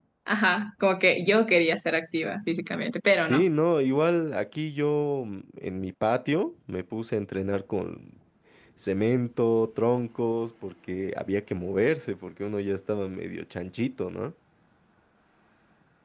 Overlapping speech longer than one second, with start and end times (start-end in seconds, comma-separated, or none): none